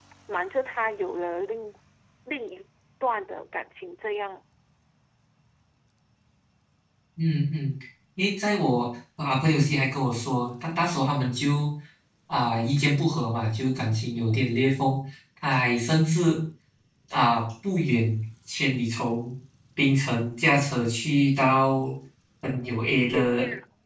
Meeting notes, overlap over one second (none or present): none